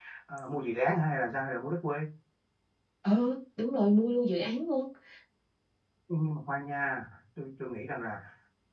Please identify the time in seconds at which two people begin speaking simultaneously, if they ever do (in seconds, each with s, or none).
none